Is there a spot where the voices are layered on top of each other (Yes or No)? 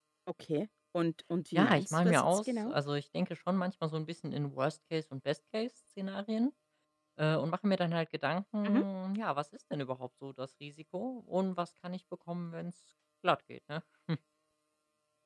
Yes